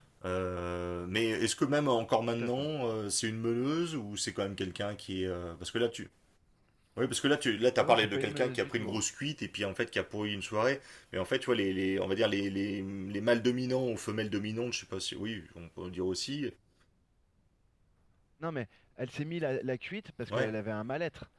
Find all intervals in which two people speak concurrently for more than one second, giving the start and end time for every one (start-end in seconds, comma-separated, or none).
7.8-9.0